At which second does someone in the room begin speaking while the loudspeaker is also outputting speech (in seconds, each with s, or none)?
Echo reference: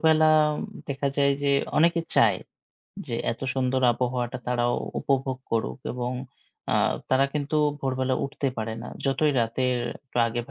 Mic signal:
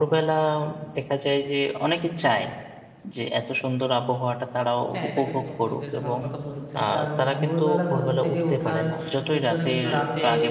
4.9 s